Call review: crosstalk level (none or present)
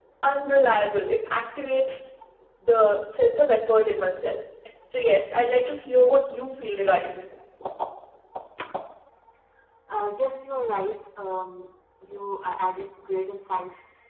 none